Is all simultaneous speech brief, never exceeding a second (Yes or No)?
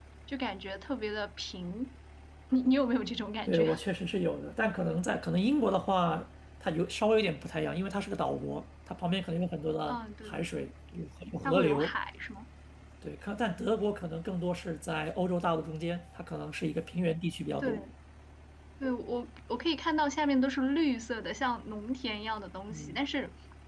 Yes